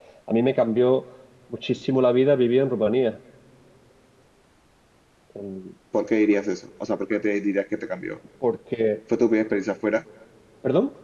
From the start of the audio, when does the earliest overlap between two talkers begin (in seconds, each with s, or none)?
none